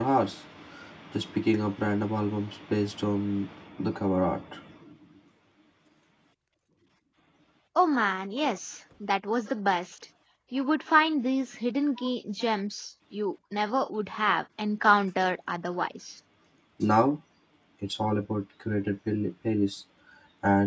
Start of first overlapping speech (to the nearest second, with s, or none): none